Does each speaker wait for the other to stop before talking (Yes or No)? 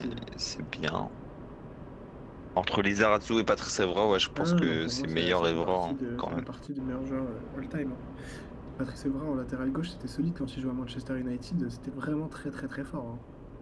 No